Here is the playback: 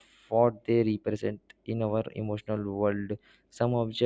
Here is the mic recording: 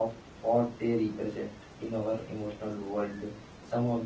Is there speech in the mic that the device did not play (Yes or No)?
No